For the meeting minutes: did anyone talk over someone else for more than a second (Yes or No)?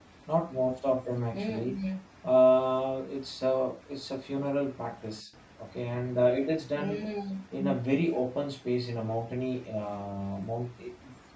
No